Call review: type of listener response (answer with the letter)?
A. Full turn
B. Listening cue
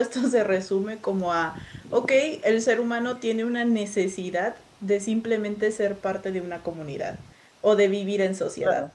A